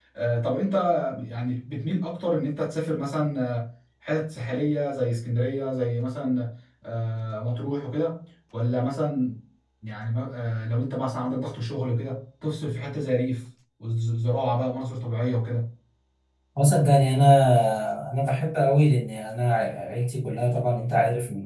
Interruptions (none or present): none